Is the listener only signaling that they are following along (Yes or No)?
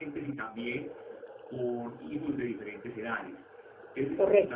Yes